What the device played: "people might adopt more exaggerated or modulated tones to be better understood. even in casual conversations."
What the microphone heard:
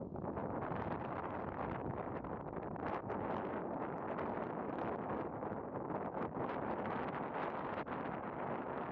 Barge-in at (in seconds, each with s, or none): none